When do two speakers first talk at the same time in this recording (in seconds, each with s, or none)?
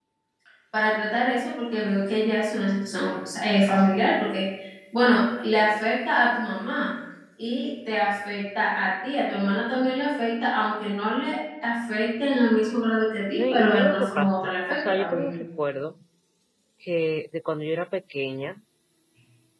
13.4 s